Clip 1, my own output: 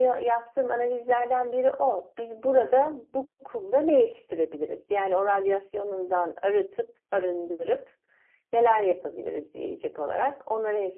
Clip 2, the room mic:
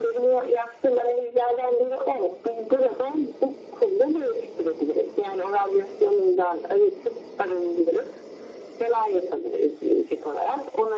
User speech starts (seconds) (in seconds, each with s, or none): none